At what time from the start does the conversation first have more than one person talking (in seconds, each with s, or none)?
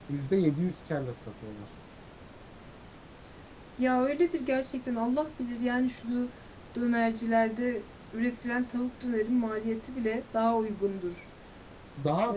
none